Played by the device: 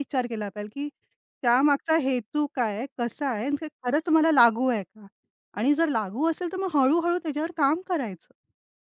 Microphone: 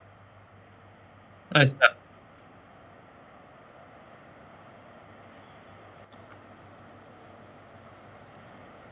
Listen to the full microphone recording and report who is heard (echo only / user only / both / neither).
user only